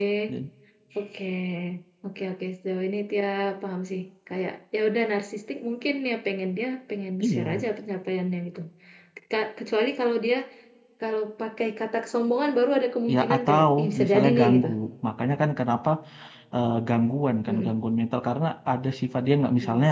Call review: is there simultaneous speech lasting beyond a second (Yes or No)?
Yes